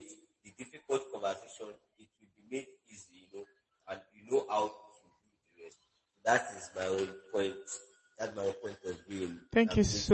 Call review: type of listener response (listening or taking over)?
taking over